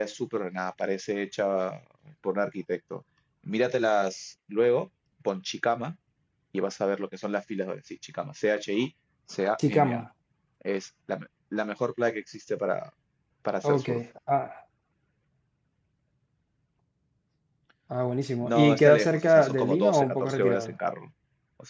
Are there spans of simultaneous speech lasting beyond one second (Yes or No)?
Yes